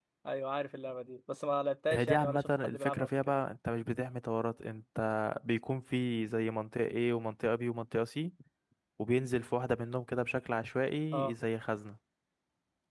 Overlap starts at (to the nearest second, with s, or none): 2 s